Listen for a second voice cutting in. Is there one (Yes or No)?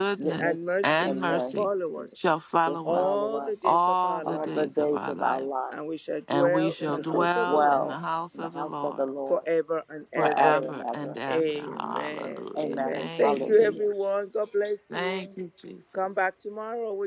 Yes